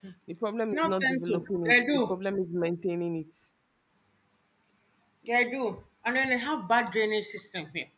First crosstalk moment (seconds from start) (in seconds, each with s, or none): 0.7 s